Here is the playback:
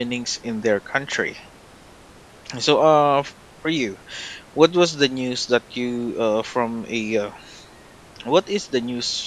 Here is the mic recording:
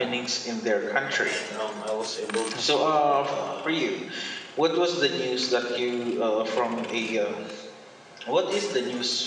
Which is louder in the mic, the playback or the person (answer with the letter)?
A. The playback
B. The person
A